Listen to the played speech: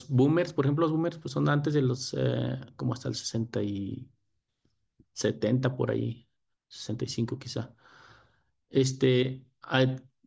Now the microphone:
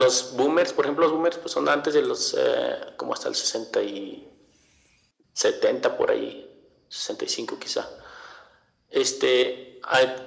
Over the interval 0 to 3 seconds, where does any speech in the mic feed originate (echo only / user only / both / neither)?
echo only